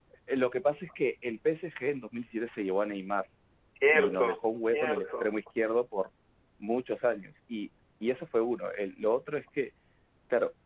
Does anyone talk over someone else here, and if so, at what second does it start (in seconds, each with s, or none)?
3.9 s